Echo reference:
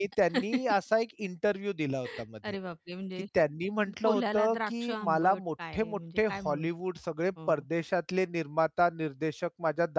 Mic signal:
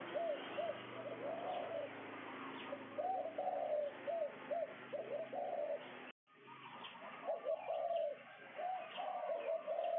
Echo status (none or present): none